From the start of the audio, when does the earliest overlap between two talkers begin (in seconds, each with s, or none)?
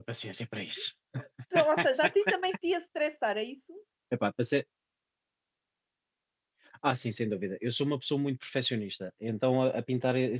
none